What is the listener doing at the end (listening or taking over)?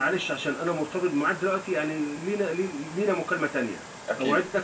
listening